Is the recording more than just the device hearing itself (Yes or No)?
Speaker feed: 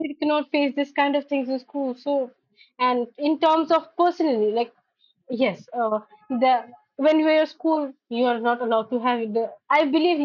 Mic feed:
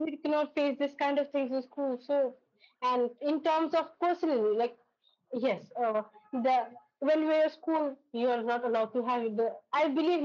No